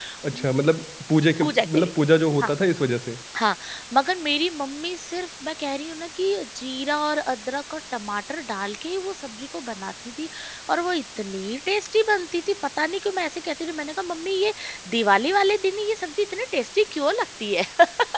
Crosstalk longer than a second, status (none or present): none